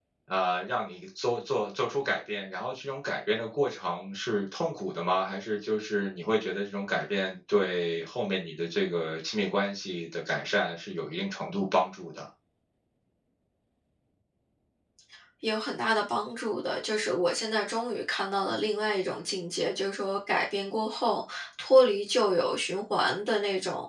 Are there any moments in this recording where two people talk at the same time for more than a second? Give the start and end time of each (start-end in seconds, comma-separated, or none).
none